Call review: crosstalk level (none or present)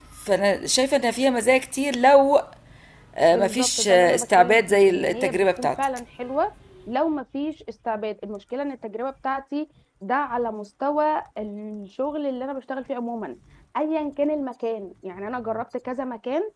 present